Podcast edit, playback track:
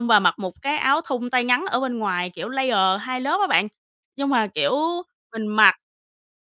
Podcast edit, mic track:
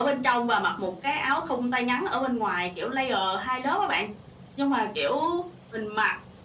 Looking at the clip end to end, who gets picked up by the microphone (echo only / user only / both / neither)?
echo only